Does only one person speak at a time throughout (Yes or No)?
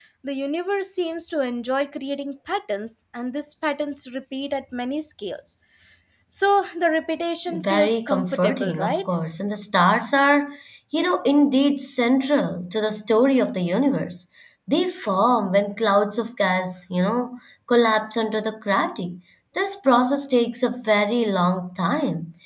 No